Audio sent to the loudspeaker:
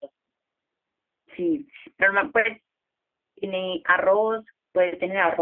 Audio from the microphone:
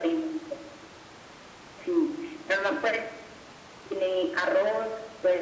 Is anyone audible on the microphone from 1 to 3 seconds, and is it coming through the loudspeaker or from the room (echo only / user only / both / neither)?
echo only